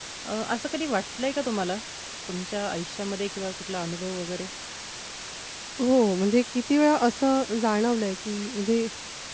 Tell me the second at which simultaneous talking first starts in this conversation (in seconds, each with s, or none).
none